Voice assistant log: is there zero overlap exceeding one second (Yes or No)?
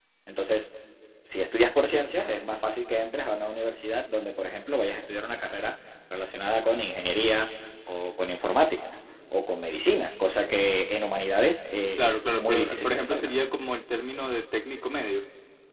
No